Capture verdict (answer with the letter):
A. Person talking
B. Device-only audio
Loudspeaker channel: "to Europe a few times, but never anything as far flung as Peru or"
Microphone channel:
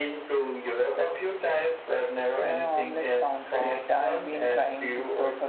A